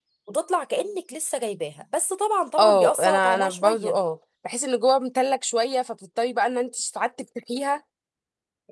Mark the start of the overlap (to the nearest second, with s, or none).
3 s